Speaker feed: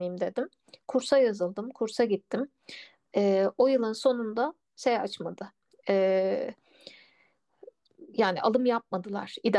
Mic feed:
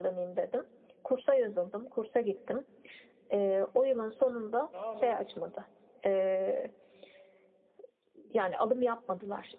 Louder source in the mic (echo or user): echo